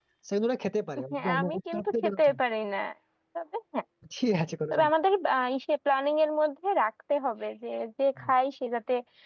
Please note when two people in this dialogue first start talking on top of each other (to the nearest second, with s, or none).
1 s